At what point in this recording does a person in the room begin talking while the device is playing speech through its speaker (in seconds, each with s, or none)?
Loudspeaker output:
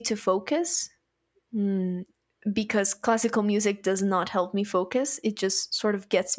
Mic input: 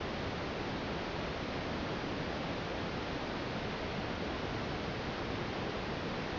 none